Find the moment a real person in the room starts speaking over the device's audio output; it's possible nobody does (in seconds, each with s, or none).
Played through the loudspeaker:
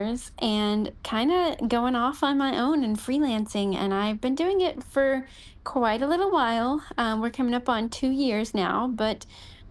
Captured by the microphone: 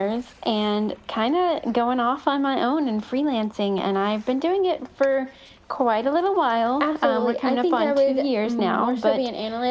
6.8 s